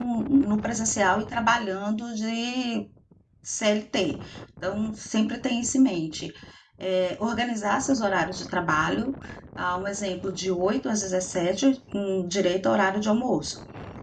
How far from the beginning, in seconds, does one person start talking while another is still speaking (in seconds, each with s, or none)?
none